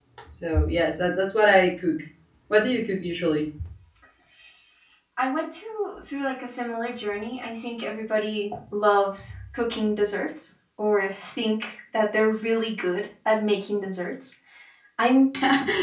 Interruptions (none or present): none